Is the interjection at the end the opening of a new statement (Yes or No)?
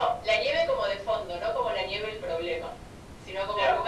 No